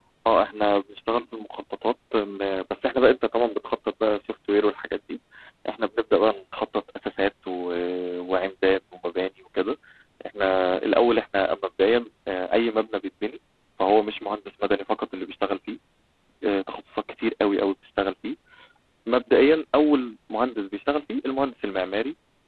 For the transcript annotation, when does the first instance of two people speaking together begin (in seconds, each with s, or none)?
none